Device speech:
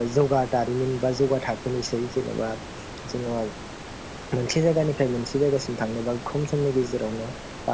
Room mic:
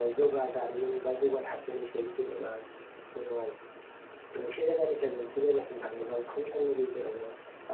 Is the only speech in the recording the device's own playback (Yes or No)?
Yes